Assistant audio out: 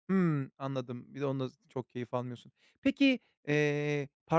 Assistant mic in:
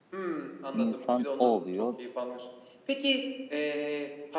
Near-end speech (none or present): present